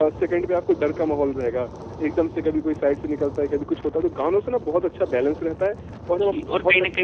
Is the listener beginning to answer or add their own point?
Yes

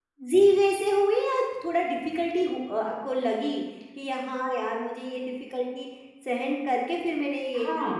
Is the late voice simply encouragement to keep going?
No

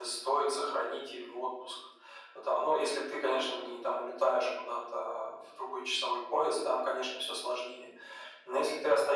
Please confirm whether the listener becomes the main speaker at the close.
No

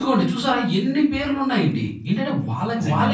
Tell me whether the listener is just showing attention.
Yes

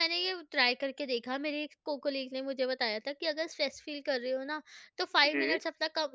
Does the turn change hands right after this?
No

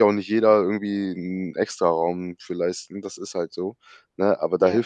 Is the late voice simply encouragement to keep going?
Yes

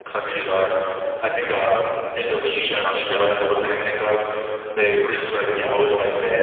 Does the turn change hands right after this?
No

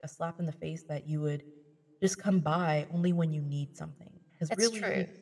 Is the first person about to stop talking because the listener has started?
No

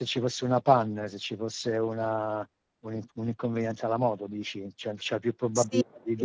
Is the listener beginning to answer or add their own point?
Yes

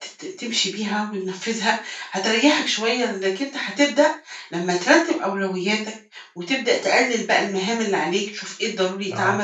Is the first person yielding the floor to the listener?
No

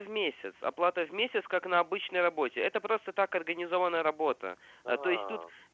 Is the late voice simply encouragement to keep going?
Yes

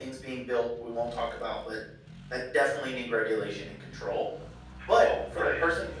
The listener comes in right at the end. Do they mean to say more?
No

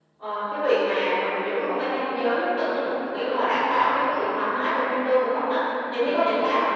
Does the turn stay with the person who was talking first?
Yes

